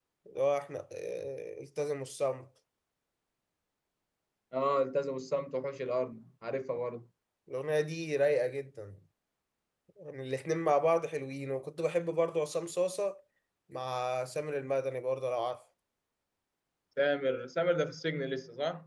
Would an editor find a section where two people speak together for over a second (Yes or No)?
No